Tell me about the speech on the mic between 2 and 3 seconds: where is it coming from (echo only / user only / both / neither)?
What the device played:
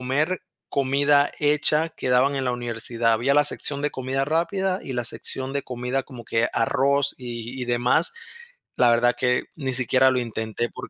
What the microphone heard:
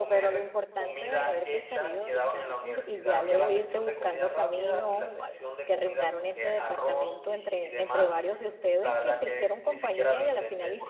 both